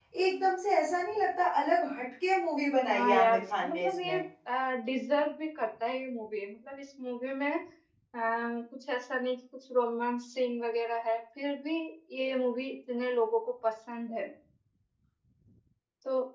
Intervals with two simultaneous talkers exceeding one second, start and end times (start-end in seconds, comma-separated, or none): 2.9-4.2